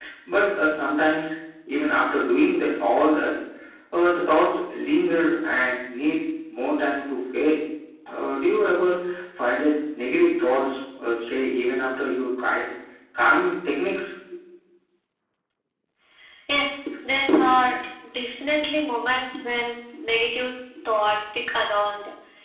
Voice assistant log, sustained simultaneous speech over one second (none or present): none